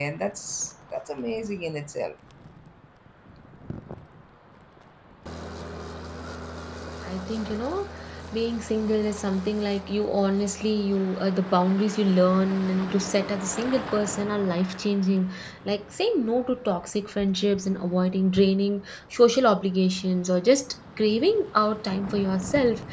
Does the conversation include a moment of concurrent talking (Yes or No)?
No